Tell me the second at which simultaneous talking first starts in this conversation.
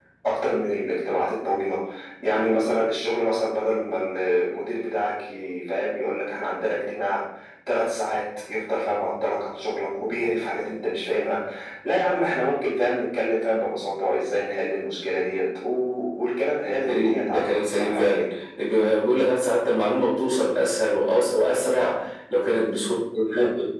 16.6 s

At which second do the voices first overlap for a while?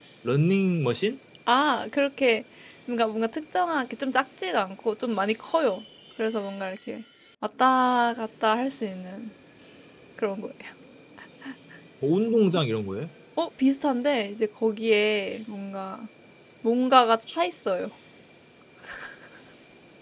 none

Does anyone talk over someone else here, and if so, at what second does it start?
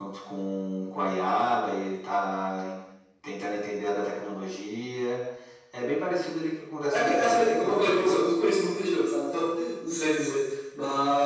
6.9 s

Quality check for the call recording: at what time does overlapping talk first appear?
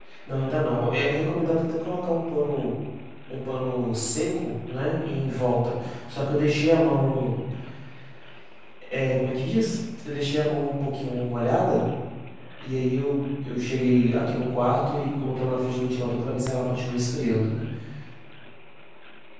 none

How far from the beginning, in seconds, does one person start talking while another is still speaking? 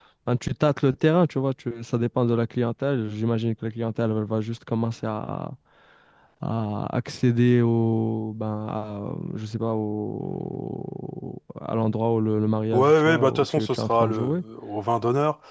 12.7 s

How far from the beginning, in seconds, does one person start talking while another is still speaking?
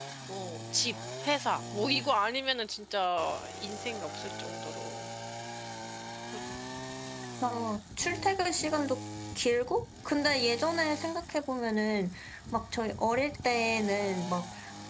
none

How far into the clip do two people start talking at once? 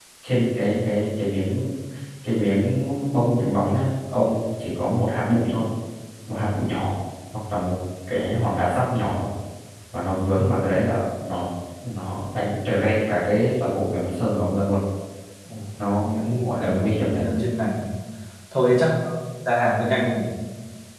16.0 s

